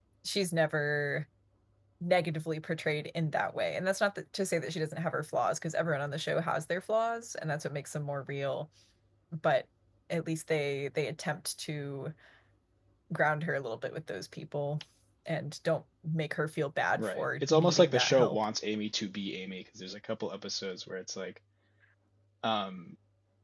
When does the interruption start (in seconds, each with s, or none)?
17.0 s